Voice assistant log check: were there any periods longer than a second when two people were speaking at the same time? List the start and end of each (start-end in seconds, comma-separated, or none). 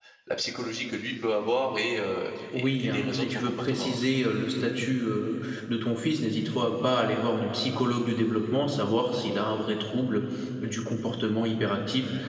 2.5-4.0